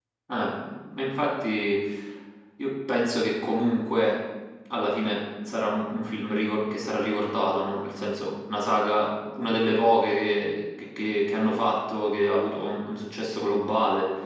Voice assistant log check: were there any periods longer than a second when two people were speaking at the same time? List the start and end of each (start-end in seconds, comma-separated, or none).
none